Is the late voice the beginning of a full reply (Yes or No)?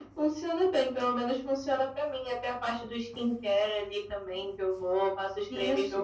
Yes